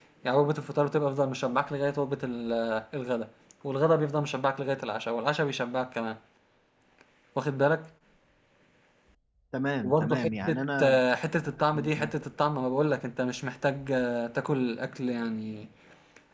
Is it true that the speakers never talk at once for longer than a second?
No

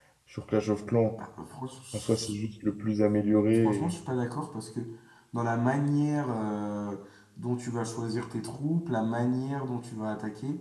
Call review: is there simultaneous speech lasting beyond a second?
No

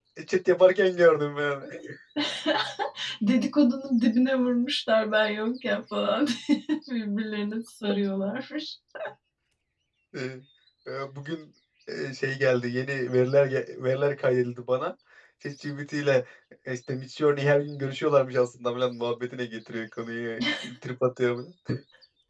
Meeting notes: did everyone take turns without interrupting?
Yes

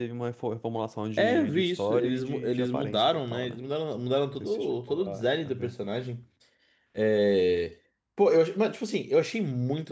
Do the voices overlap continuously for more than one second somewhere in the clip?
Yes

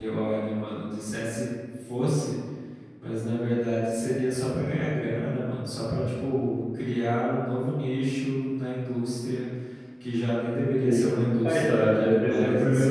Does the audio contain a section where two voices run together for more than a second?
Yes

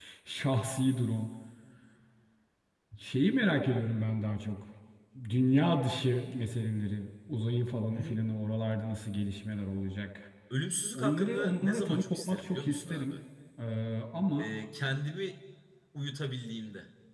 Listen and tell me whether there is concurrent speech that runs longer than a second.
Yes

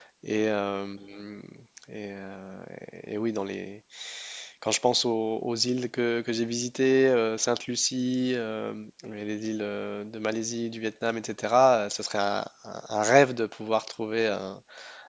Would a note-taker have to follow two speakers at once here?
No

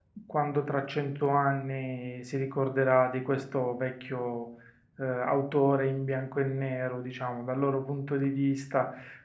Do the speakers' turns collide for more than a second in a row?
No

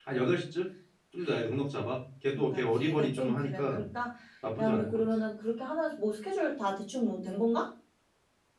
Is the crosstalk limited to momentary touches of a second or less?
No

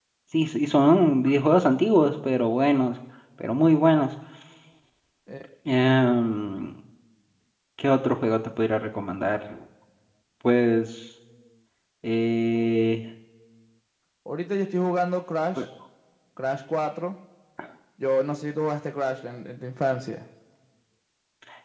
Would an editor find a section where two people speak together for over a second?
No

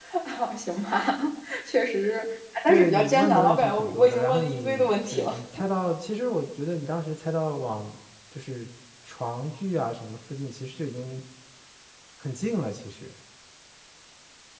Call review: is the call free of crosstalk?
No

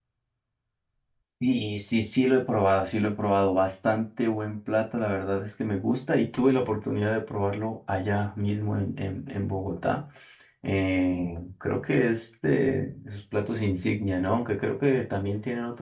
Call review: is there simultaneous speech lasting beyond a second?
No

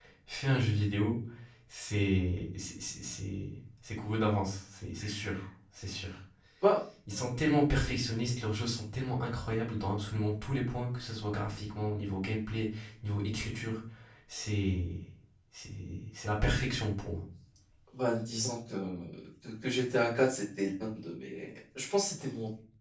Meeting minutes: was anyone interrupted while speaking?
No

